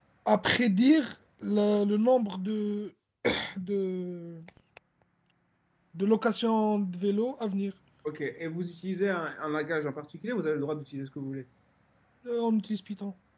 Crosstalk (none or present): none